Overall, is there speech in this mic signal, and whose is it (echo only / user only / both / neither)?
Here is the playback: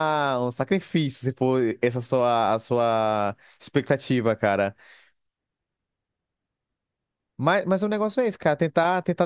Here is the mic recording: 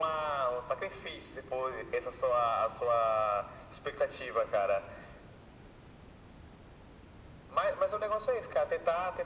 echo only